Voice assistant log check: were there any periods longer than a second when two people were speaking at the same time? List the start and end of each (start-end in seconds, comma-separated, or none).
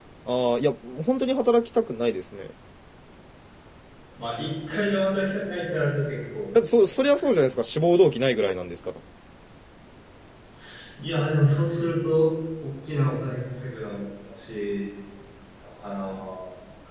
none